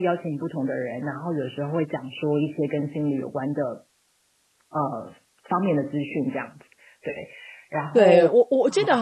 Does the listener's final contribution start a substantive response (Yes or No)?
Yes